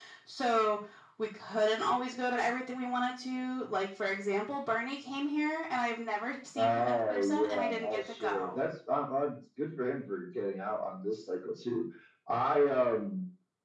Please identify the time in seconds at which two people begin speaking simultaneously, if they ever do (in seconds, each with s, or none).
6.6 s